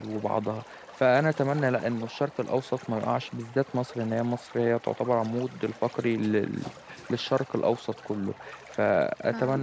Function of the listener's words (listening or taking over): taking over